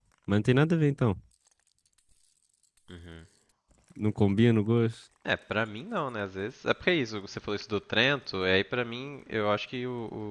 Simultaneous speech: No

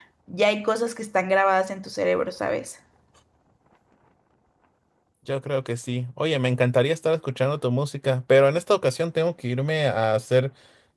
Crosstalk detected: No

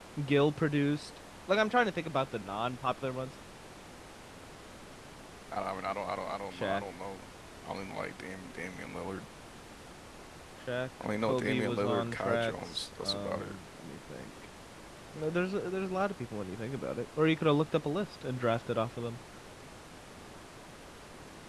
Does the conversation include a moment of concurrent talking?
Yes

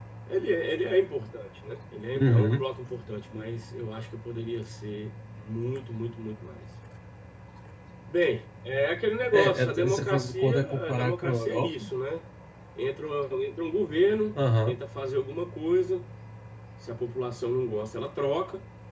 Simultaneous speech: Yes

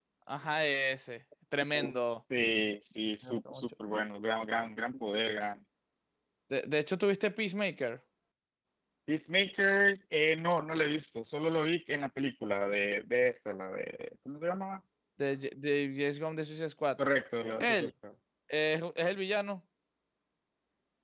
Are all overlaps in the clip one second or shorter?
Yes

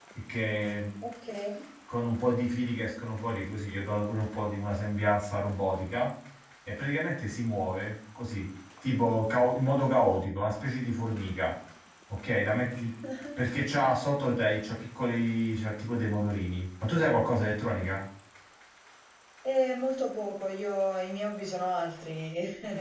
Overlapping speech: No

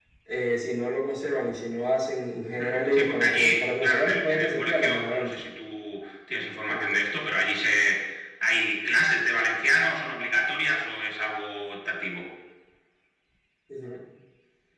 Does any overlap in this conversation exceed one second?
Yes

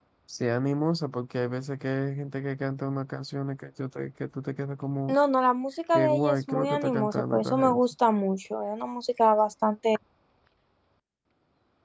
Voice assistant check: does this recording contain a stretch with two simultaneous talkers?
Yes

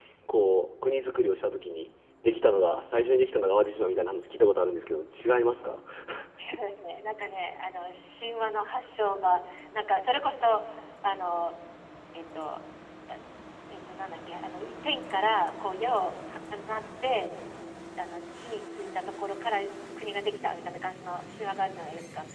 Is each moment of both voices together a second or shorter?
Yes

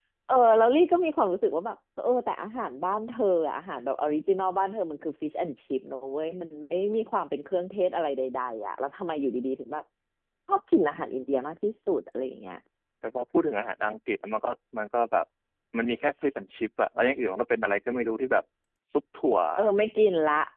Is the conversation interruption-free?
Yes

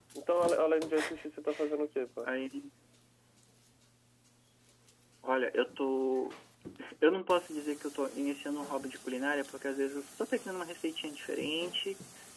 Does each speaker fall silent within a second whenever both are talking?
Yes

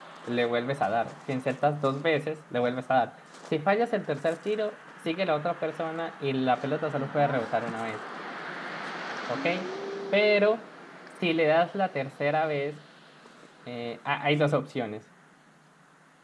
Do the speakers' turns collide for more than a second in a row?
No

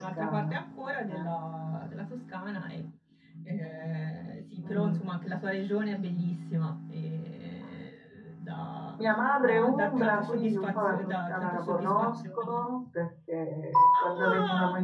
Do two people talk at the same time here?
Yes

